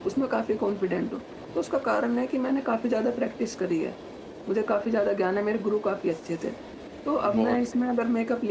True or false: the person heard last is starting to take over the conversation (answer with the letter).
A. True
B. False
B